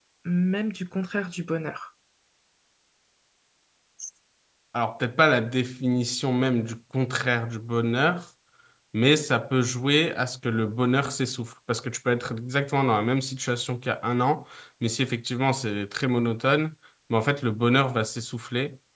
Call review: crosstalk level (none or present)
none